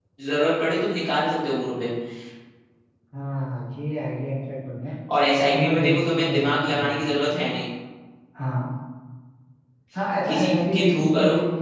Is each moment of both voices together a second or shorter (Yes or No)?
No